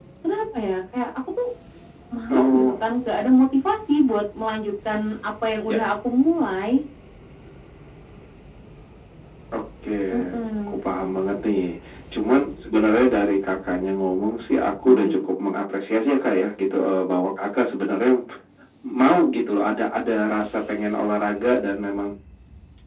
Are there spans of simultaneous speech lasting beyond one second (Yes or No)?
No